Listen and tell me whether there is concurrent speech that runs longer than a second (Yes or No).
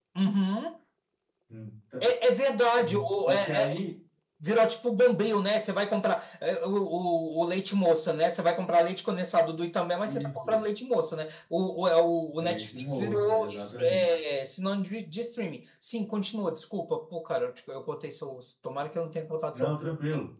Yes